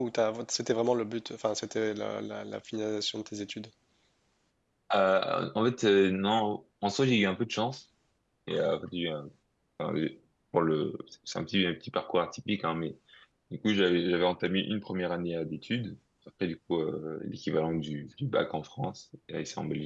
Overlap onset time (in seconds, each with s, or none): none